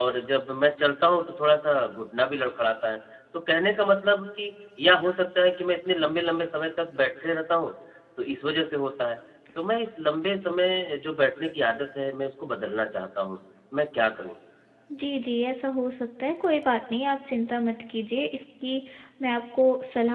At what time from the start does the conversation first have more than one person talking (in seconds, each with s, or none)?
none